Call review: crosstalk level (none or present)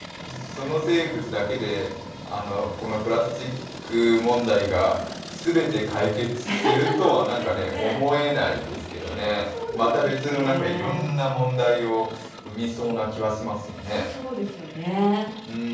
present